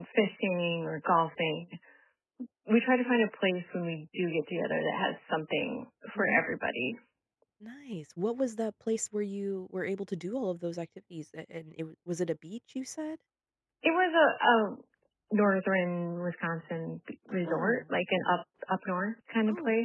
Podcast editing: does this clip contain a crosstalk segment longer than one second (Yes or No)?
No